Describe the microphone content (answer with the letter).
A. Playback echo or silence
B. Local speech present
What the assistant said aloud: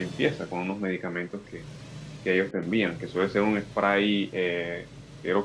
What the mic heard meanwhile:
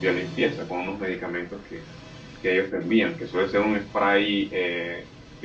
A